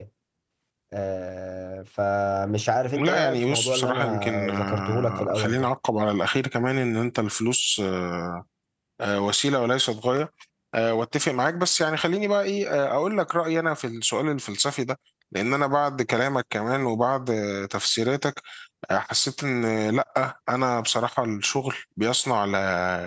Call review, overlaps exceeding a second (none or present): present